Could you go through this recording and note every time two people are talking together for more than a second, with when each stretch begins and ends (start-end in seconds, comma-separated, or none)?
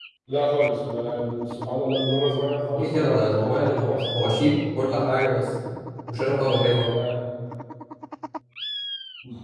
2.7-4.5